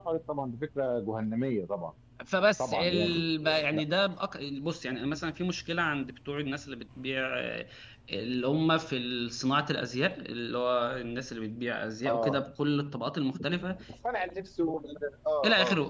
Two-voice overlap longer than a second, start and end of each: 2.6-3.8

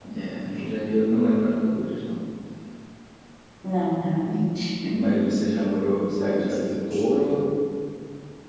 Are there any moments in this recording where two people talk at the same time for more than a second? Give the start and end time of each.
6.2-7.4

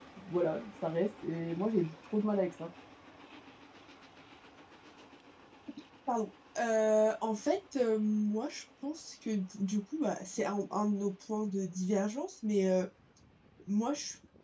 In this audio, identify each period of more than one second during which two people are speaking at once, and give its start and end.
none

